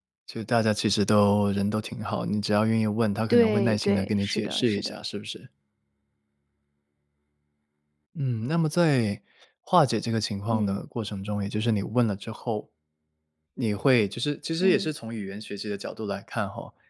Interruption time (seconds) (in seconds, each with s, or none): 3.3 s